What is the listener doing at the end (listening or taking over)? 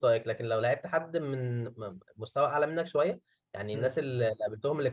listening